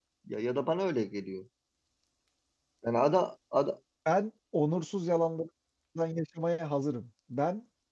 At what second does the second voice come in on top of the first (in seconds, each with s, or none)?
none